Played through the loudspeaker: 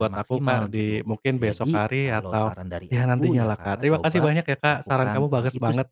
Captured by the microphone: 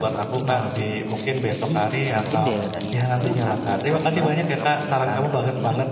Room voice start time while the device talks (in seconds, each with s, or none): 2.1 s